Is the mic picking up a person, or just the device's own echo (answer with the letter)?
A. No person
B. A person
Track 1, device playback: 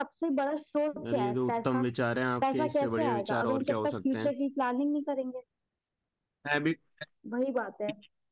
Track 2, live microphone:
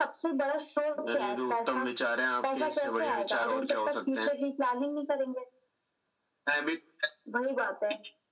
A